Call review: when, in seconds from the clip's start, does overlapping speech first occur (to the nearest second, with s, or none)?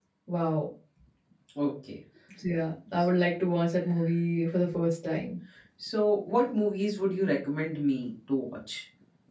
none